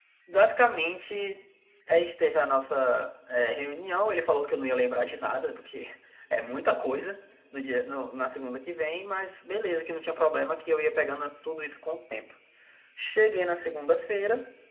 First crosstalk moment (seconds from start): none

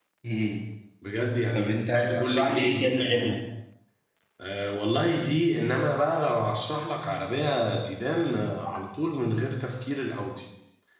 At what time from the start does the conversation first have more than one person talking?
1.6 s

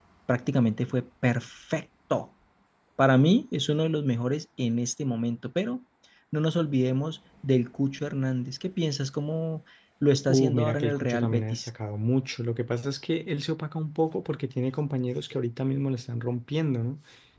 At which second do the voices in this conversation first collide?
10.3 s

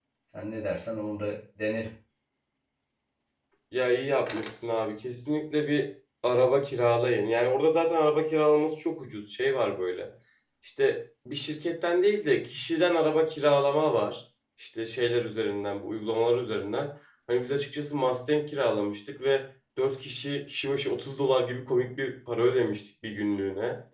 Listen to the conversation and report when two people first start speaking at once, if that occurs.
none

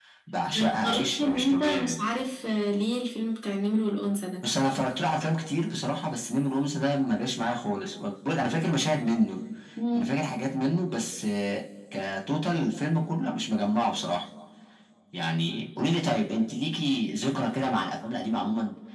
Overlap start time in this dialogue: 0.5 s

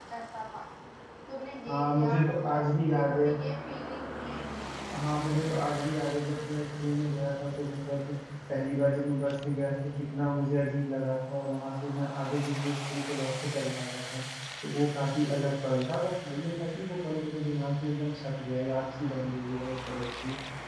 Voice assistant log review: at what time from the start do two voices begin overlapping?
1.7 s

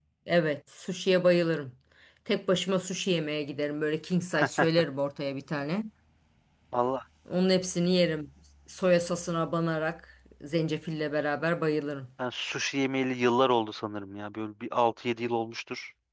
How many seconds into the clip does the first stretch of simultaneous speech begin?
none

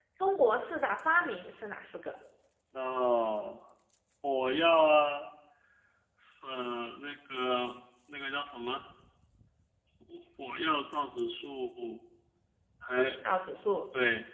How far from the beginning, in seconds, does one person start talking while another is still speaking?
none

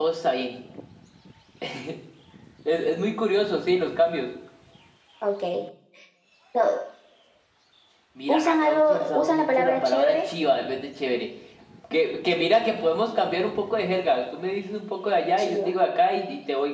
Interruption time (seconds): 8.3 s

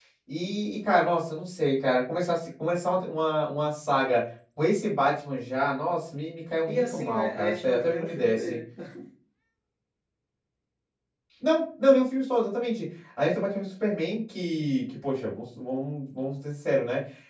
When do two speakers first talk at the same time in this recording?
6.7 s

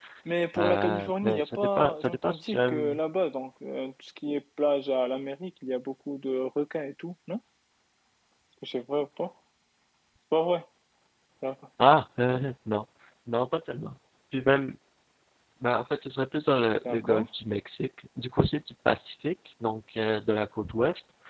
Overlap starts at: 0.6 s

